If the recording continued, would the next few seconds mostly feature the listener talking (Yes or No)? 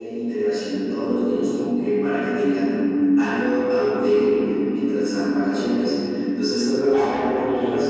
Yes